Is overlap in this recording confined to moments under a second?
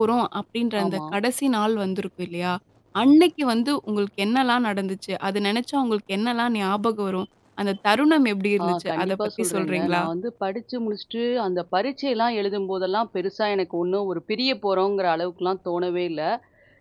No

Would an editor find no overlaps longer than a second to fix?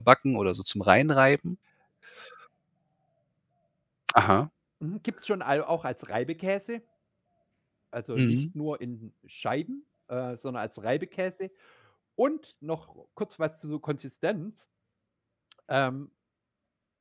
Yes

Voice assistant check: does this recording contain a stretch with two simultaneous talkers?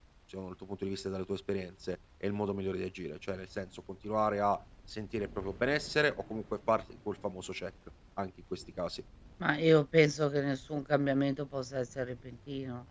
No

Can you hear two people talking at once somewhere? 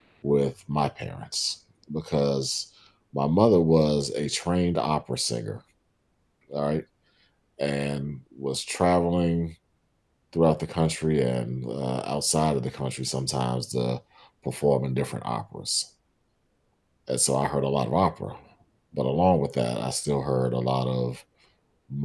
No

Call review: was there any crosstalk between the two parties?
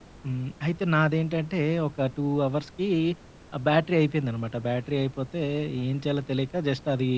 No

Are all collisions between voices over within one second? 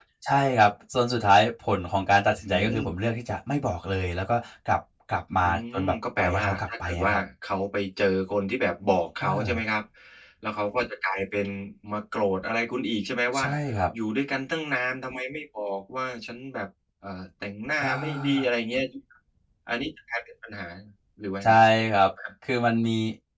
No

